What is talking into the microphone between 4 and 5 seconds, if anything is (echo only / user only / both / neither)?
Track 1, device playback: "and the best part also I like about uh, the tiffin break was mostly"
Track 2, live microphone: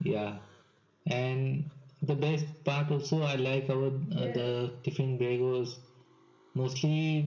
both